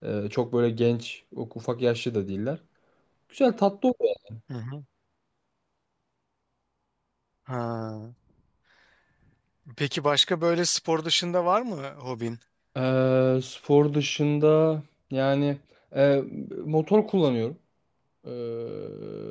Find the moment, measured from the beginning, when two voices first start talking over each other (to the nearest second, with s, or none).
none